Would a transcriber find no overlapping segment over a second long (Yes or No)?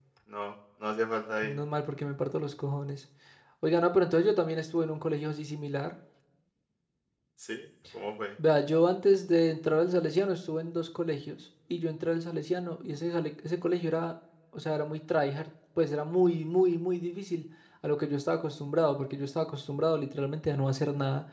Yes